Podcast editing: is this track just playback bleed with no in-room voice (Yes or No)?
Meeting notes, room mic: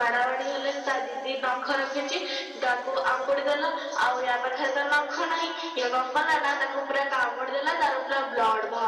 Yes